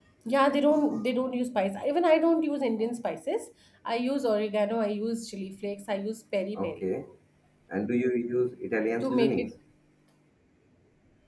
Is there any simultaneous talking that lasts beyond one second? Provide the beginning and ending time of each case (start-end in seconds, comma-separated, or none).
none